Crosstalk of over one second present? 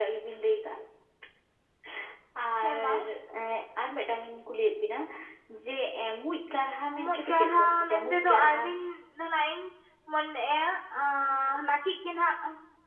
Yes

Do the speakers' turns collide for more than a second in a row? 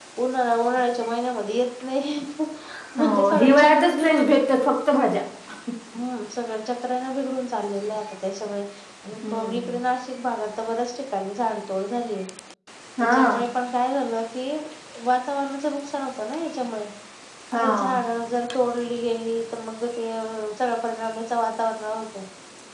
Yes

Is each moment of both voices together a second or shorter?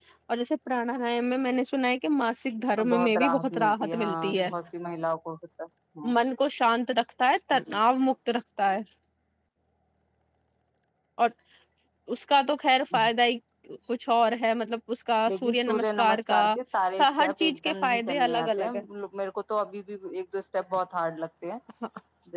No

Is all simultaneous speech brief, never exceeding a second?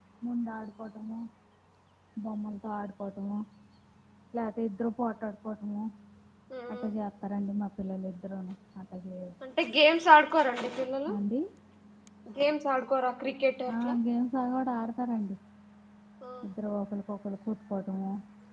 Yes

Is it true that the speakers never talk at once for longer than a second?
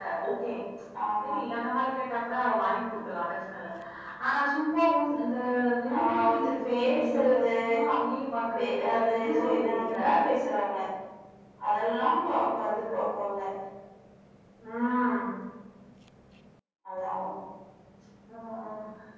No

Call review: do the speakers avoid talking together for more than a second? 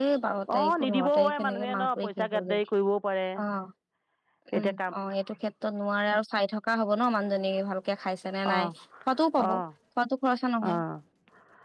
No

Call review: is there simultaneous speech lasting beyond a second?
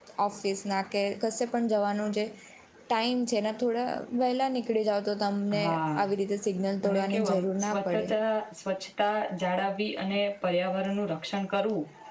Yes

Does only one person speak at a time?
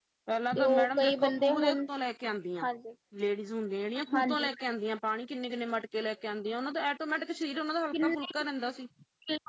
No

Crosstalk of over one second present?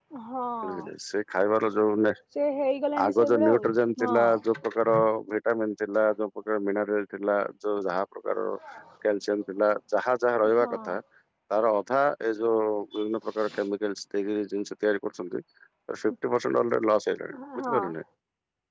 Yes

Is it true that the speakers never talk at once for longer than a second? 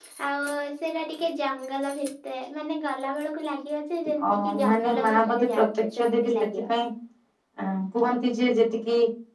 No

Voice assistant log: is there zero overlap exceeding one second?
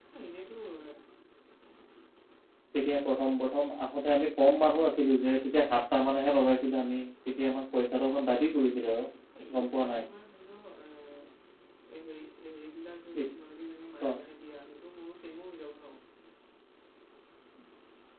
Yes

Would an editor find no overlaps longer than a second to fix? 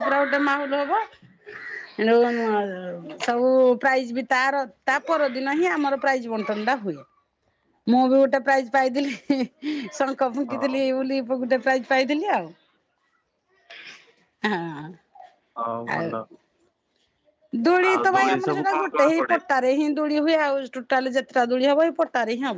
No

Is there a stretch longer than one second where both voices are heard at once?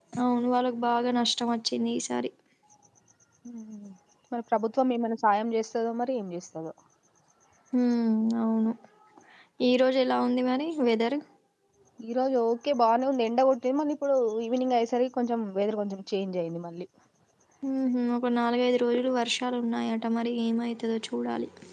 No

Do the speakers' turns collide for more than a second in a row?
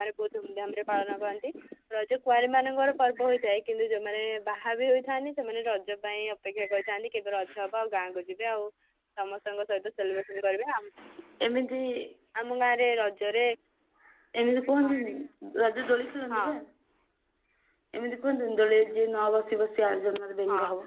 No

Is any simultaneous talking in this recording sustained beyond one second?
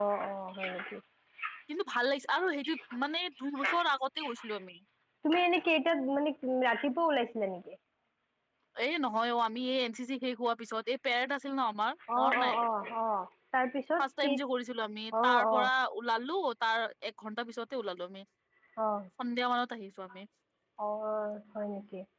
No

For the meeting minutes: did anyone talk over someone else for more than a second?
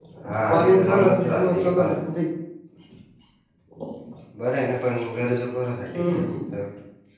Yes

